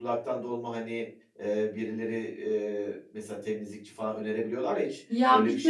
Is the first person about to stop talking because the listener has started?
Yes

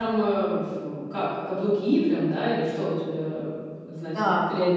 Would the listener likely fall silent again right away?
No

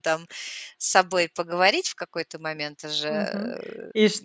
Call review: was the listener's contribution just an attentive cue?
No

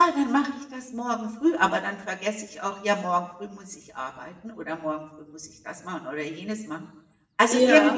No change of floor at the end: Yes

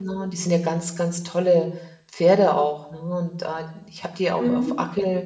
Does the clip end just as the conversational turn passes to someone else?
No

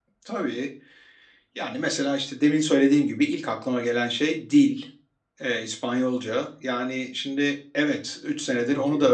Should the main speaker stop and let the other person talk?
No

